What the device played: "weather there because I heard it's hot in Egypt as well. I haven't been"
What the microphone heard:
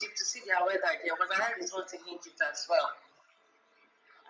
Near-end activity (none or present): none